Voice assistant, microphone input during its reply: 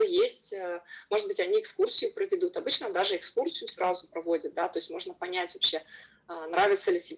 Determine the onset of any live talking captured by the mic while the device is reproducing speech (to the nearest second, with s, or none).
none